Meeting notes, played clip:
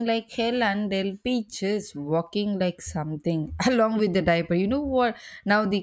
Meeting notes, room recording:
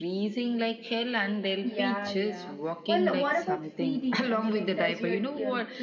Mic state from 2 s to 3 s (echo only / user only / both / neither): both